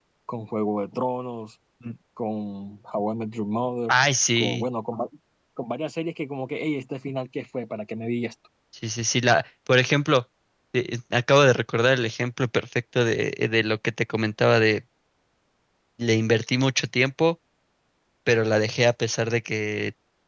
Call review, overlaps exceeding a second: none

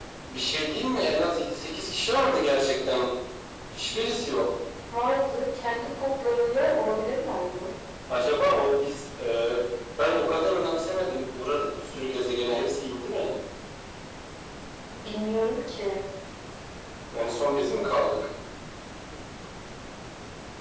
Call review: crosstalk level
none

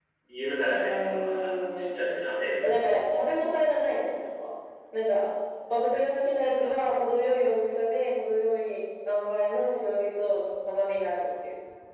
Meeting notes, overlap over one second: present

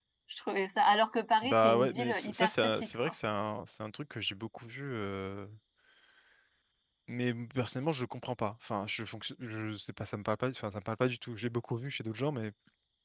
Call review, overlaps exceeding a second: present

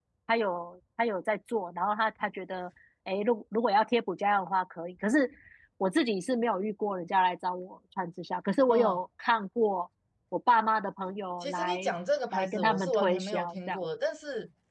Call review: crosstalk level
present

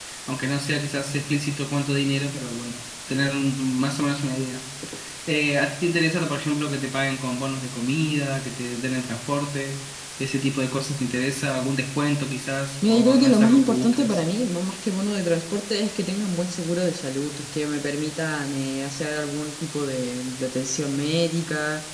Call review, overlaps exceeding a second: present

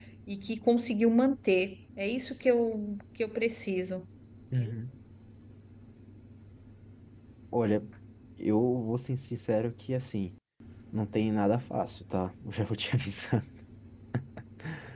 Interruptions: none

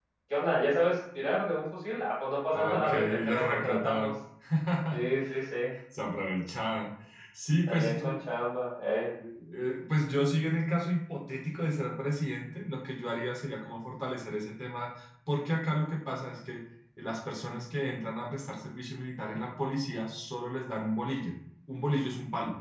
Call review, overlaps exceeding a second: present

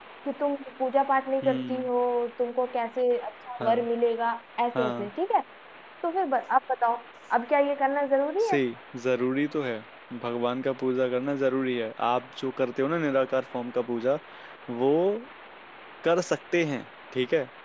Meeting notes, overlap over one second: none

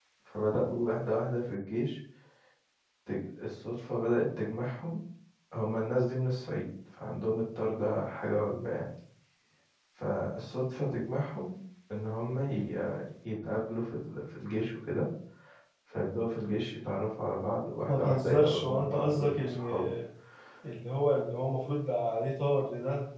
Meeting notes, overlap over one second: present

